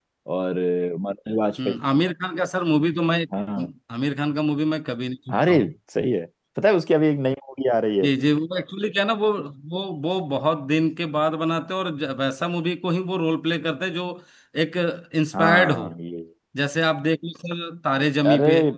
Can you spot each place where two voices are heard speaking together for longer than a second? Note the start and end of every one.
none

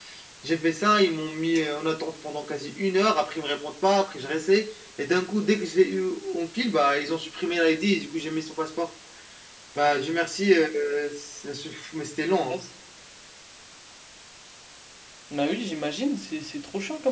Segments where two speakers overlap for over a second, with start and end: none

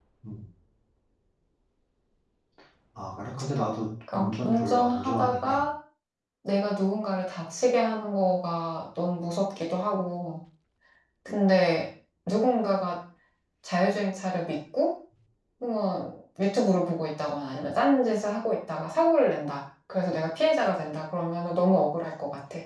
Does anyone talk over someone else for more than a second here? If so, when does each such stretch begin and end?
4.1-5.6

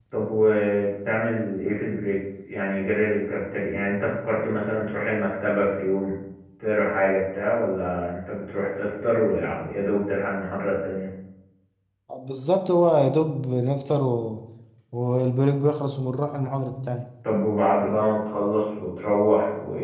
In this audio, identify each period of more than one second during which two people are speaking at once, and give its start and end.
none

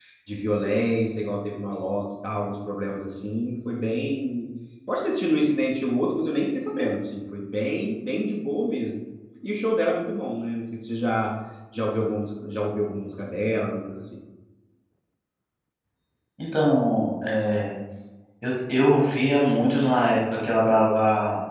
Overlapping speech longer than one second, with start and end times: none

